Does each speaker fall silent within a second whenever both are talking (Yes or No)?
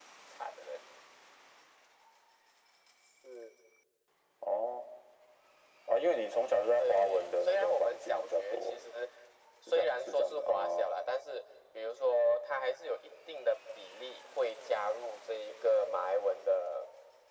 No